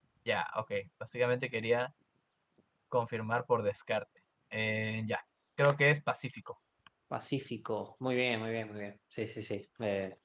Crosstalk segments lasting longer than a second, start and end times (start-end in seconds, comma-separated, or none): none